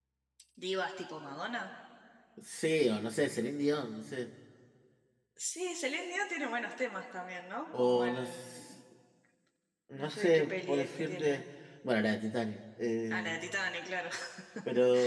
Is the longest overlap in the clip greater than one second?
Yes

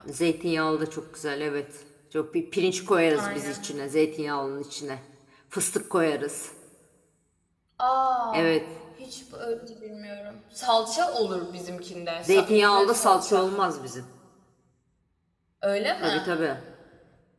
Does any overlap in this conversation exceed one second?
Yes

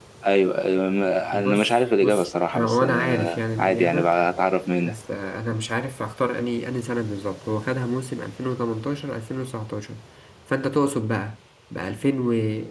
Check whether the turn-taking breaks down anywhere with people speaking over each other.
Yes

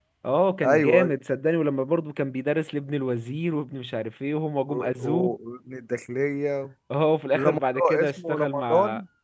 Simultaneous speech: Yes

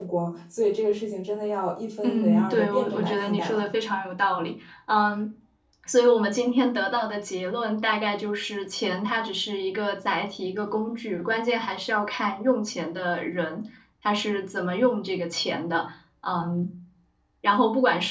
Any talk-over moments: Yes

